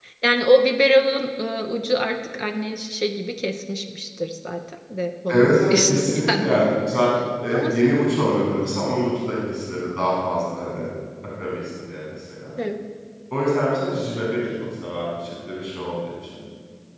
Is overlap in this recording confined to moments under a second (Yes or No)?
No